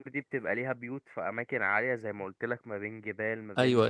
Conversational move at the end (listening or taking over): listening